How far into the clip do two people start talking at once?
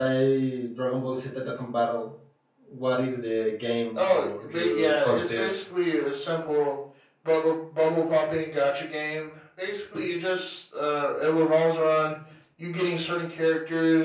4 s

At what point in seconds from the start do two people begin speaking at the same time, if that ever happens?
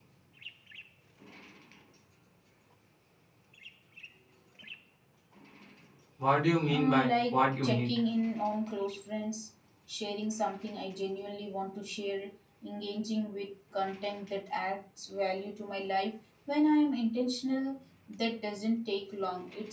7 s

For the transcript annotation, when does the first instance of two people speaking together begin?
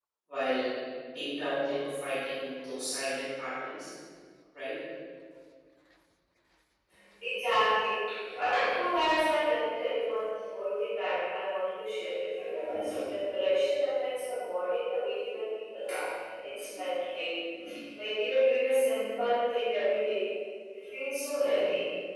none

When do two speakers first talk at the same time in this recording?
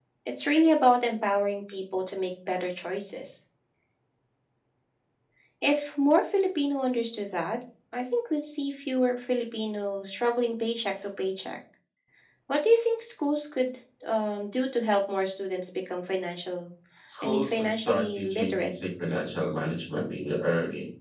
17 s

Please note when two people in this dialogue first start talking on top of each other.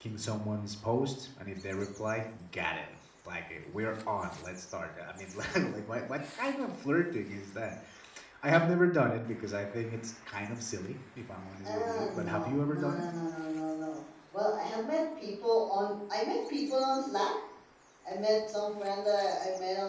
12 s

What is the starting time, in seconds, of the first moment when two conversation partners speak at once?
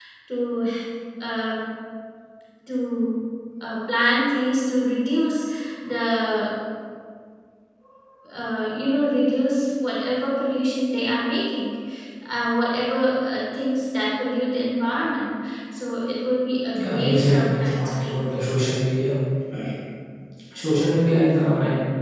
17 s

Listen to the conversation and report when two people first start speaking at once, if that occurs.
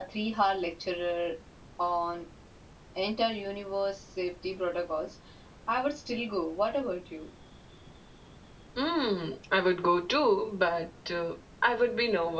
none

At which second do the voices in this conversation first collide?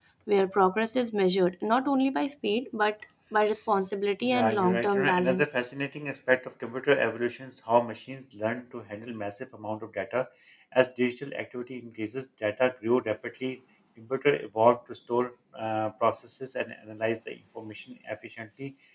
4 s

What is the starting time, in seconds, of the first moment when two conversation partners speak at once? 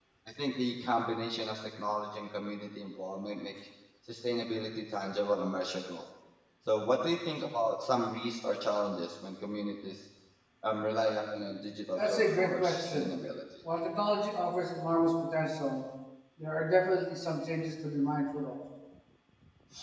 12 s

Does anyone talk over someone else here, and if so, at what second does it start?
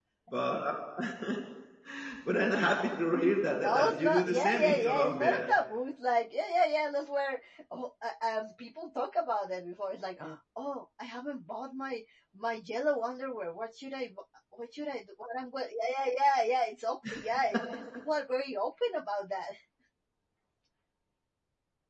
4 s

